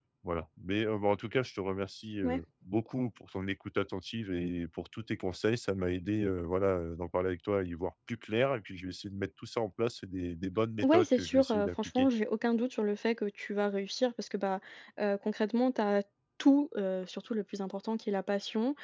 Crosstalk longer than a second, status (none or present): present